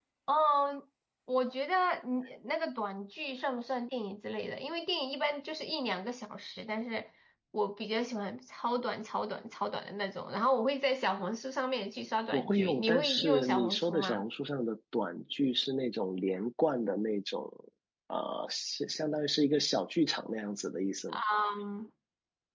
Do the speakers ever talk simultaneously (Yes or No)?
Yes